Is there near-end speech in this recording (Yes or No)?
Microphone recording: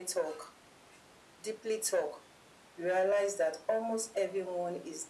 No